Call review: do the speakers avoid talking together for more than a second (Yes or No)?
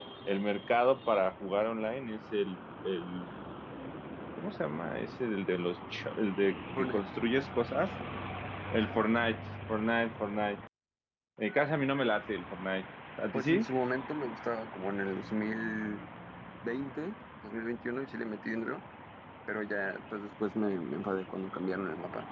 Yes